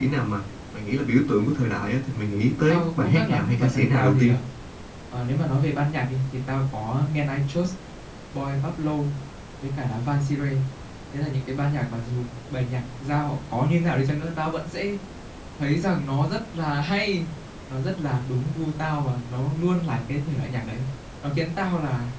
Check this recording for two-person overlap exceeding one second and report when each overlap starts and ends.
2.7-4.4

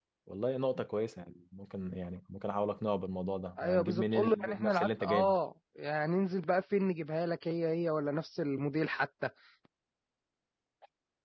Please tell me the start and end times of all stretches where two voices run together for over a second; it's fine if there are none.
3.6-5.3

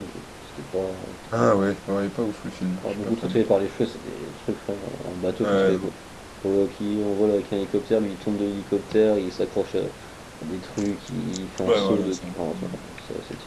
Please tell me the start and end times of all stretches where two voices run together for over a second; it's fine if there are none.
11.7-12.8

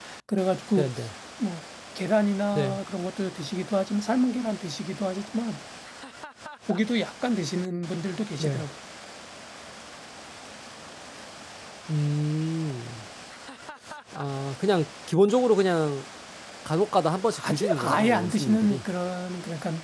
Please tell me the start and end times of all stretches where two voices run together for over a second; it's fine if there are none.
17.4-18.8

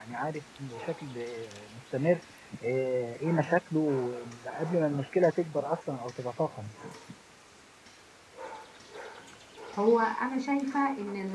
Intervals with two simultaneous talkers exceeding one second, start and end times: none

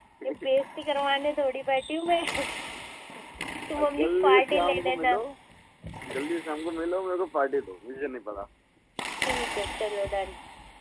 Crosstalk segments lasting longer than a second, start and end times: 3.8-5.2

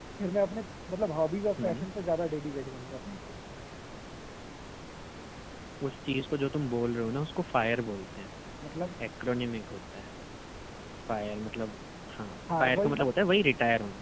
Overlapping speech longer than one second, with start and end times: none

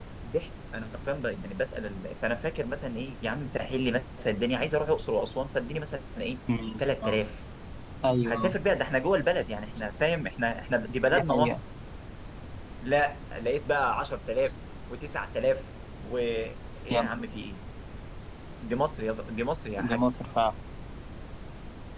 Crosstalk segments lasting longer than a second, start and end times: none

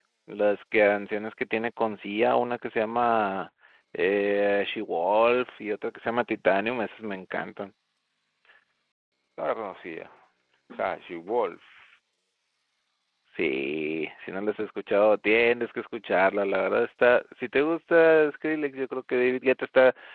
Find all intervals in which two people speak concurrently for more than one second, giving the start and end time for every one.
none

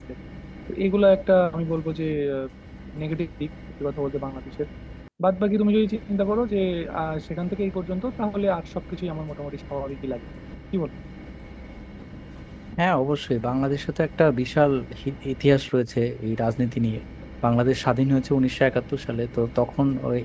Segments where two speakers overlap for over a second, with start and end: none

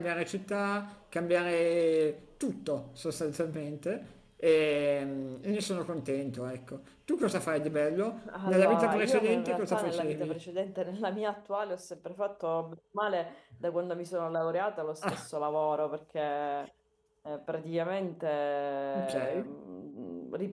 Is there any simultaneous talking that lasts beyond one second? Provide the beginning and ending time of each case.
8.5-10.4

